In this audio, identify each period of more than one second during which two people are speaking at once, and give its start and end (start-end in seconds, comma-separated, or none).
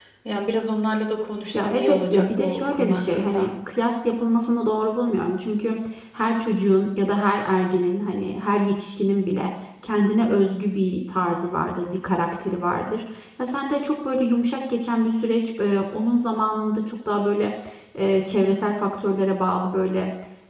1.5-3.5